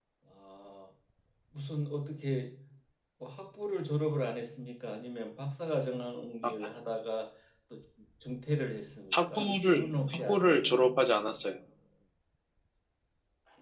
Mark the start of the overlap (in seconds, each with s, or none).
9.1 s